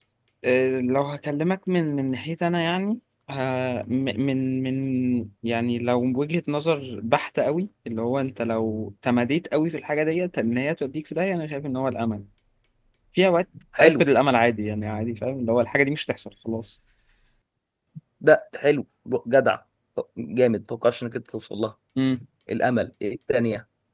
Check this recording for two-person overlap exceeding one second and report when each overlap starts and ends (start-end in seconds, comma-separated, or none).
none